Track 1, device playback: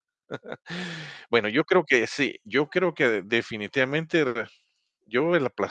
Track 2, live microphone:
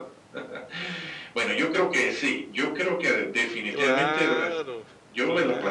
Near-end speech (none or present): present